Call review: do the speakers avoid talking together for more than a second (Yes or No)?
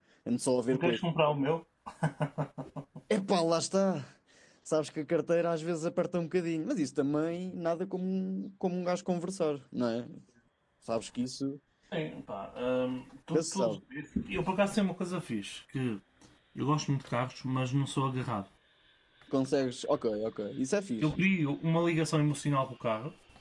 Yes